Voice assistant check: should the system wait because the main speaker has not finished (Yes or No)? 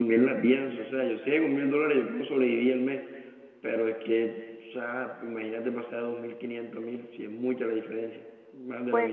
No